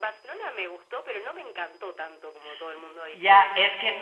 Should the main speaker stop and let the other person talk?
Yes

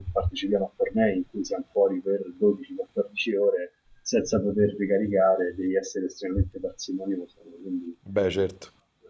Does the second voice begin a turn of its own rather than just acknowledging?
No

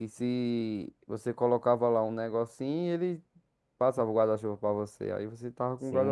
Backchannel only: No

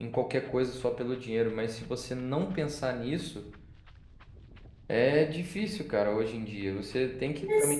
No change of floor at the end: Yes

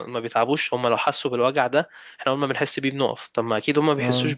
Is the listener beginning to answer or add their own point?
No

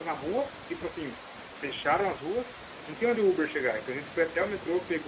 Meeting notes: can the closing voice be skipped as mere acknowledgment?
Yes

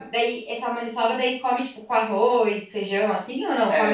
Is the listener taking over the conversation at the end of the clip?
Yes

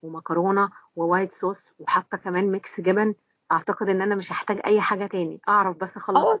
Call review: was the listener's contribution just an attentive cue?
No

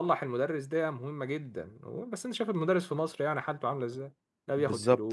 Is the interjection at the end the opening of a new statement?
Yes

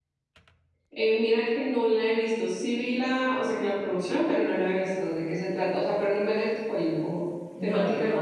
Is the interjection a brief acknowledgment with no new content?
No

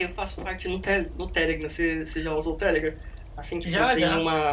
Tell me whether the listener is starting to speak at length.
No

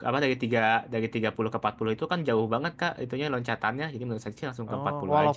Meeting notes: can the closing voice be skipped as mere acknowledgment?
No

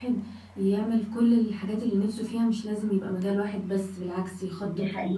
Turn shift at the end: No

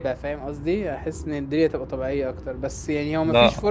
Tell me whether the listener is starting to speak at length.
No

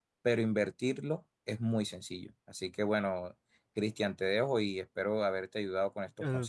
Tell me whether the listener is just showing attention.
No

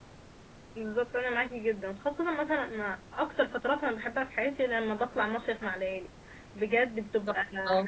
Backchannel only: Yes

